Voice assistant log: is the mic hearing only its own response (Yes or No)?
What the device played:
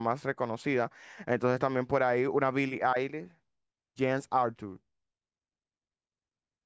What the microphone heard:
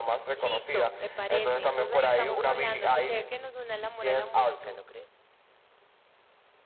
No